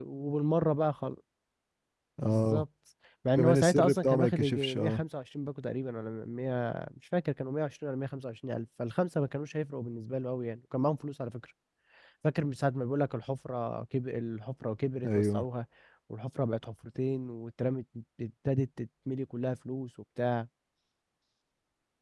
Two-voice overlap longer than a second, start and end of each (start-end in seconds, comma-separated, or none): 3.4-5.0